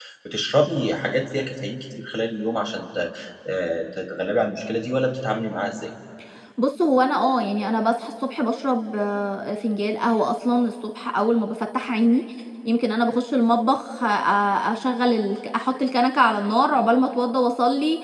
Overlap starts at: none

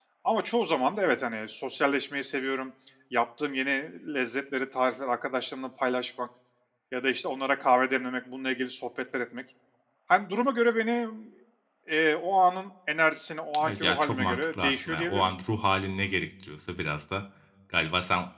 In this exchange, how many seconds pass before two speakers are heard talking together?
13.5 s

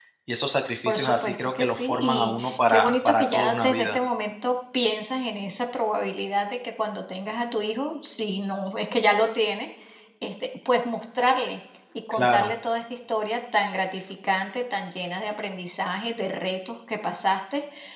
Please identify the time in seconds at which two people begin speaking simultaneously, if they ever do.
0.9 s

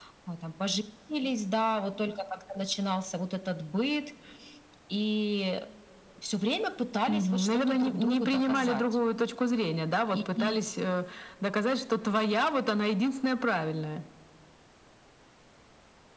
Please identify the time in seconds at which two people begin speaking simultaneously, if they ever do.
7.1 s

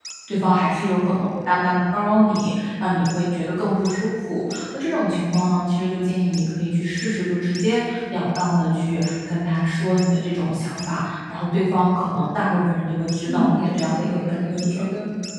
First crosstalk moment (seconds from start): 13.3 s

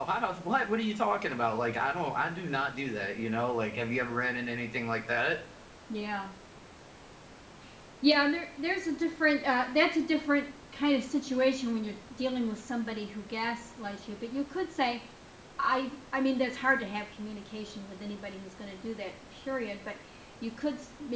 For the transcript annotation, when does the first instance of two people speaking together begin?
none

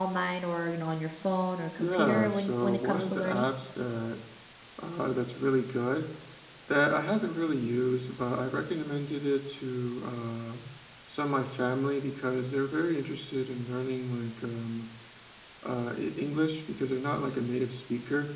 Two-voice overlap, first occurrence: 1.8 s

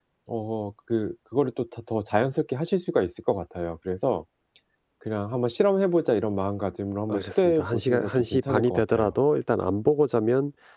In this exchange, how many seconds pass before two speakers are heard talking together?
7.1 s

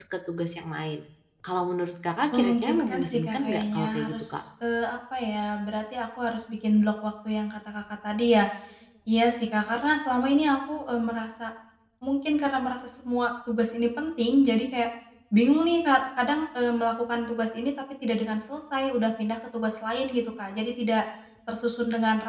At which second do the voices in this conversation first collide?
2.3 s

